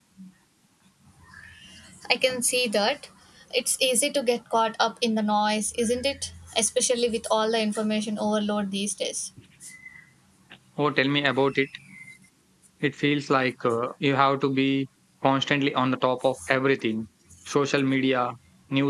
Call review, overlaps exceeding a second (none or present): none